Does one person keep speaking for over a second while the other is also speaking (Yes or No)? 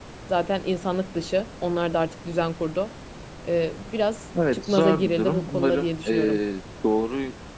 Yes